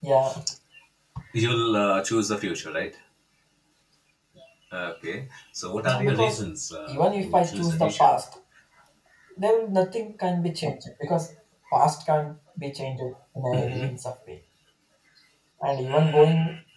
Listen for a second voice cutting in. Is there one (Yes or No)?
Yes